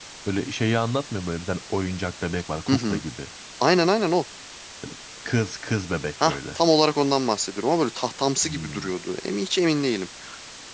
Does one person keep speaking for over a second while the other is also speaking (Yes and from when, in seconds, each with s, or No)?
No